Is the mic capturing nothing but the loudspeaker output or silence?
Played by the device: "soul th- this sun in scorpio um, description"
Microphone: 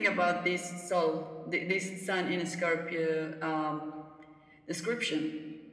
Yes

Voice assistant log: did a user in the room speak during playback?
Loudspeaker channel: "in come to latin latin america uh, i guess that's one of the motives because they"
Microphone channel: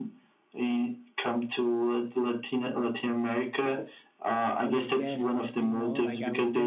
Yes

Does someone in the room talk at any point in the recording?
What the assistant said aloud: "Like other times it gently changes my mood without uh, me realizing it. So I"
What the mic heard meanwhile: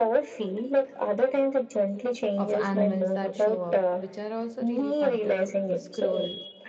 Yes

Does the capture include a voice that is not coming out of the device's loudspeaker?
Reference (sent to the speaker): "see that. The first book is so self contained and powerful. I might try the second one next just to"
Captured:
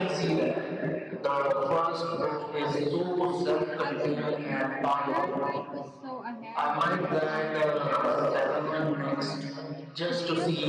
Yes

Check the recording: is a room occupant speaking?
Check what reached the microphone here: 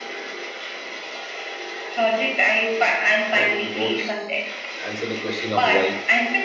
Yes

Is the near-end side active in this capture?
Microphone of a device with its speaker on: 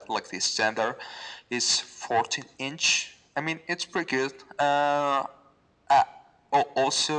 No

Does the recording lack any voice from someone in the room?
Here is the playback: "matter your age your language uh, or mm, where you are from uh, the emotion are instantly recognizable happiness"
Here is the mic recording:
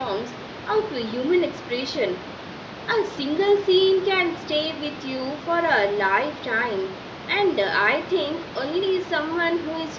No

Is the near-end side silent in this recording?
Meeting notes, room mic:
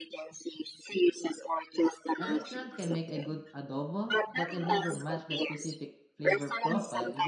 No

